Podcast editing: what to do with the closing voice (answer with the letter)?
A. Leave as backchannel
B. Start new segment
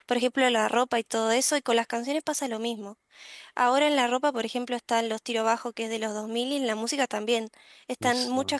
A